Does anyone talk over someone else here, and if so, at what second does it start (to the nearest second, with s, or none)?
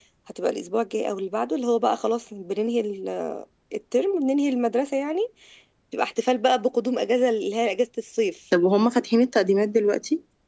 none